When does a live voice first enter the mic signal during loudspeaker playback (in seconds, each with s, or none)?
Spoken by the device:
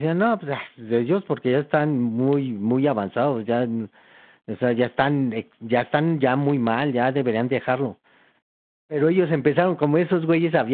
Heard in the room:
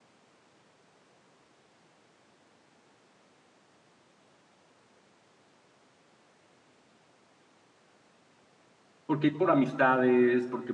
9.1 s